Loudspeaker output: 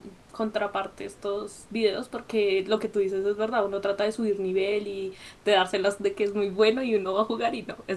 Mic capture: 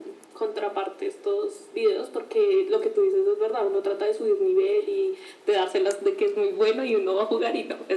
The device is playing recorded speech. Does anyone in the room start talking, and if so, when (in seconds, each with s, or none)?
none